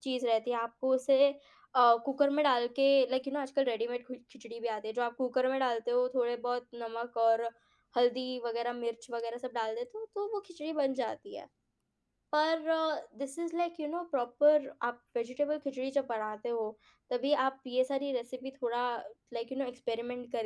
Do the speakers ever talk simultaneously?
No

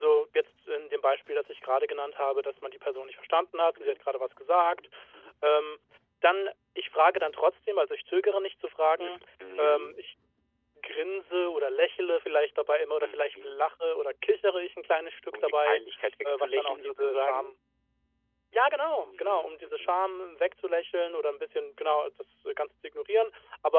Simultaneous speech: Yes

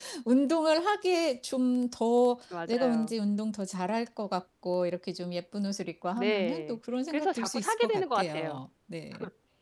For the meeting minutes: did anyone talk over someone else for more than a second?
Yes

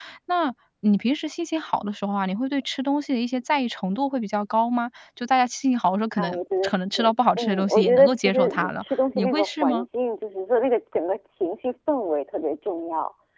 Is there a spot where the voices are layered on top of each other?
Yes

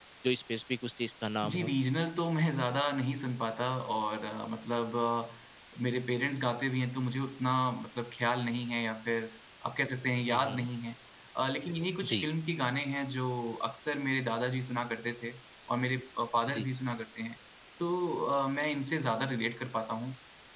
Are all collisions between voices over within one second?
Yes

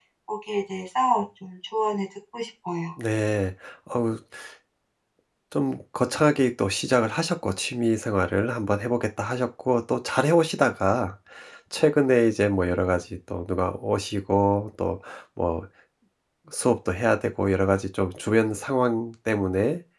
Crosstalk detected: No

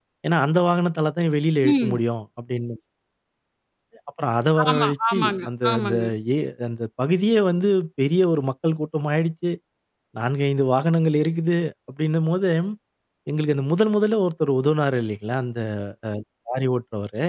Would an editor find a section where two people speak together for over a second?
Yes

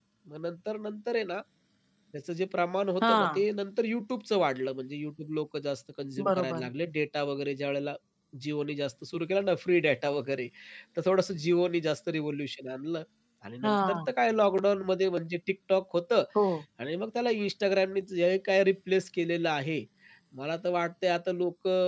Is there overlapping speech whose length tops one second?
No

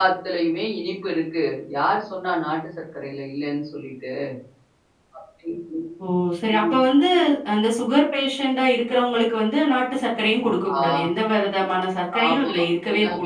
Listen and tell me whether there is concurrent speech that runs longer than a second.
No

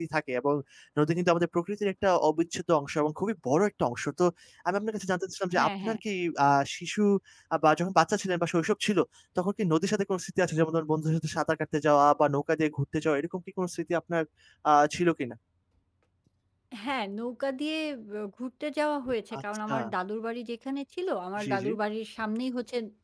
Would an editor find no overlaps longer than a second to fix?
Yes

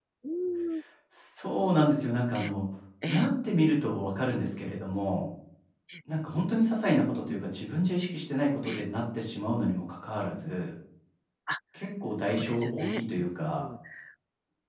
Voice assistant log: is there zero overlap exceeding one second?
No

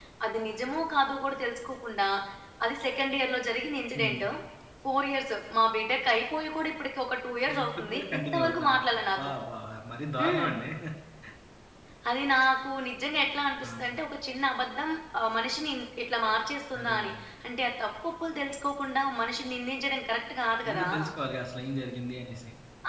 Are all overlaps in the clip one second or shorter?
No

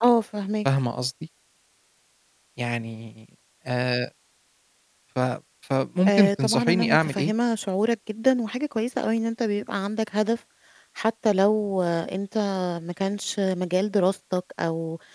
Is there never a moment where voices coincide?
No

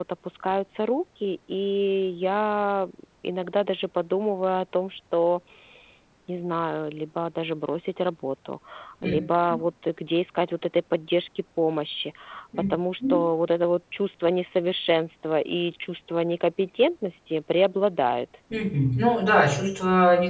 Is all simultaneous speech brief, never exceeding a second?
Yes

